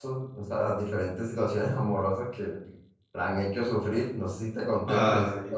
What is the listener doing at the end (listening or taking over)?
listening